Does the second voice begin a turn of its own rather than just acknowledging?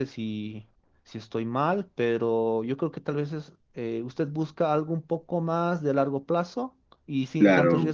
Yes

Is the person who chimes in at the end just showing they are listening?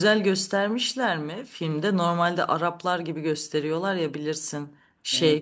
Yes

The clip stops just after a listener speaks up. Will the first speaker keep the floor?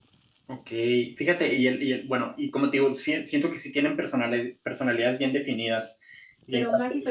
No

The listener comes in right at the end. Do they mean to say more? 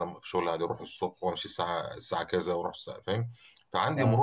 No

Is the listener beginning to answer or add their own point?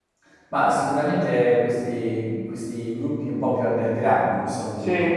No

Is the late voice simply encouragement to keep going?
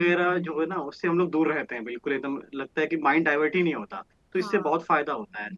Yes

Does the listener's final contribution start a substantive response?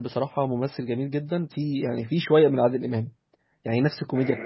No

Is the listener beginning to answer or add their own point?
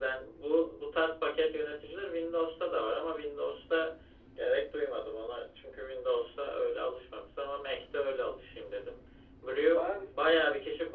No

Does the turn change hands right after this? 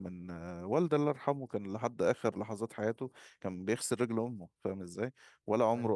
No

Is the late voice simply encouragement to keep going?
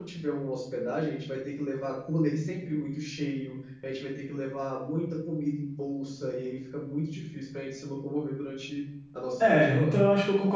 No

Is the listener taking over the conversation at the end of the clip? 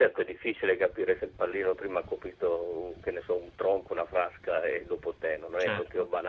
Yes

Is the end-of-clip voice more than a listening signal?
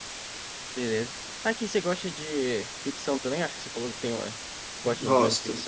Yes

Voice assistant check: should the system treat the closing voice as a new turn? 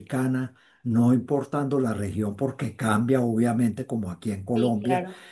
No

